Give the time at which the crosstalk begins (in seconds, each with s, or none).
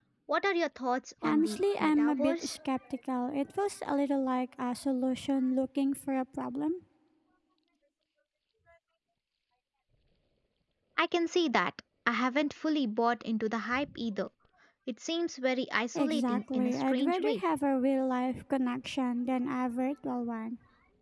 1.2 s